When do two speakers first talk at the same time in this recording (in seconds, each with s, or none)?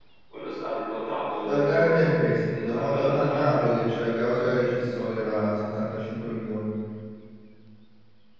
1.5 s